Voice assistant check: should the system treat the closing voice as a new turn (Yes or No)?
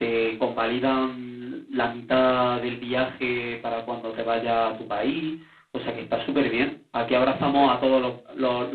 No